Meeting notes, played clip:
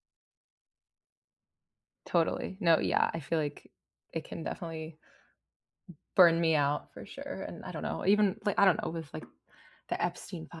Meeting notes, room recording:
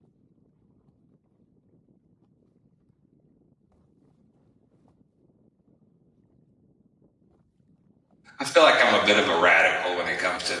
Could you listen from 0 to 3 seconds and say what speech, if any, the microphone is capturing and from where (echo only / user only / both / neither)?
neither